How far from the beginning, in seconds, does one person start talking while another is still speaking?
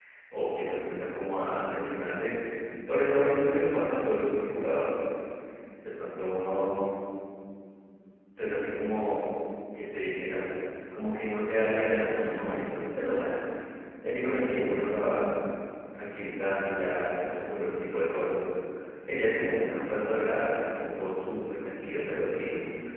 none

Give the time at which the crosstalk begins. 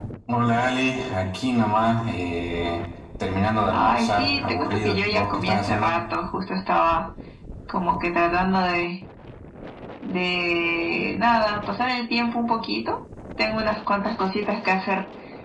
3.7 s

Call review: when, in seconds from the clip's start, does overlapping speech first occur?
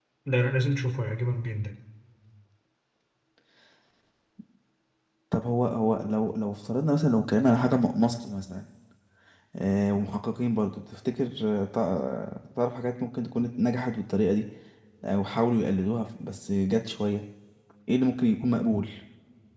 none

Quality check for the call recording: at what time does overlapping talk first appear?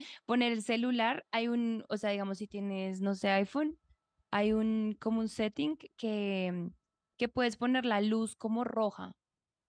none

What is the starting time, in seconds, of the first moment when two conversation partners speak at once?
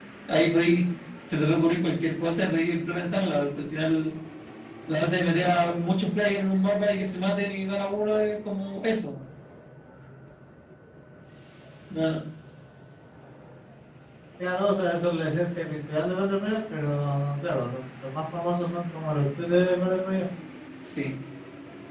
none

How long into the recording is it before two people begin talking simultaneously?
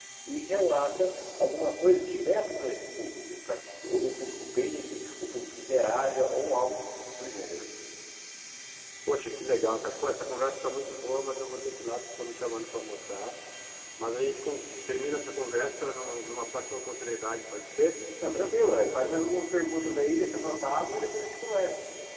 none

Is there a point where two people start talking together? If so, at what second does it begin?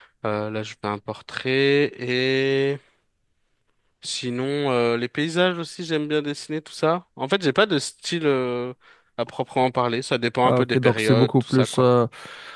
10.4 s

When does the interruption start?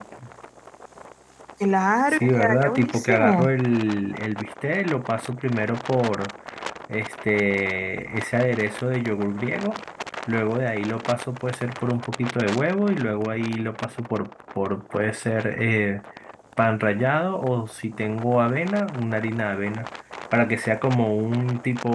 2.1 s

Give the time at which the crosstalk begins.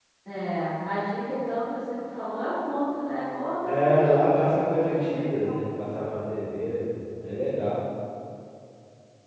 3.7 s

